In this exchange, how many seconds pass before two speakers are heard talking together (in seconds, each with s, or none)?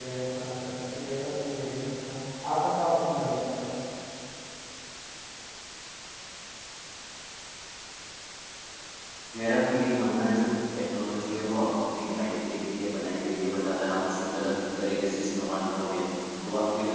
none